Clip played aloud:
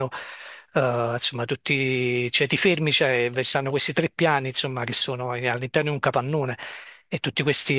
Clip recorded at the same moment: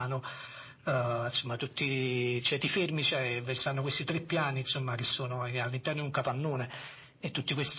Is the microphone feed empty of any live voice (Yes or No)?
Yes